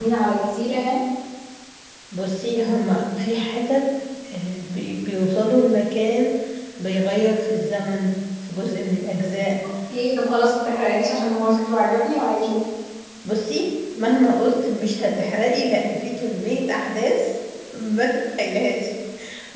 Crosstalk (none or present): none